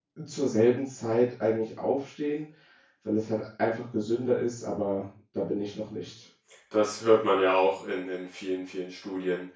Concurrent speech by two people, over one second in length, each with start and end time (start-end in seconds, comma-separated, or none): none